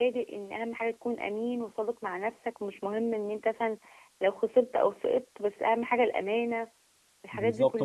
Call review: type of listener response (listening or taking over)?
taking over